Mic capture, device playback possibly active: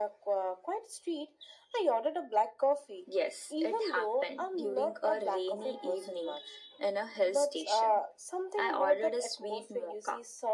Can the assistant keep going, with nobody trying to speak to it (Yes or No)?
Yes